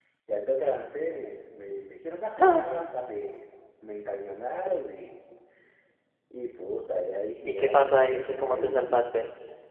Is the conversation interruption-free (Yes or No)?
No